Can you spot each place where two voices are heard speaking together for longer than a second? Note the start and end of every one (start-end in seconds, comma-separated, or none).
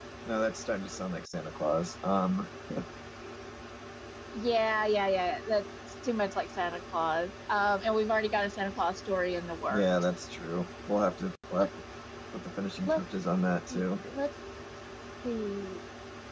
none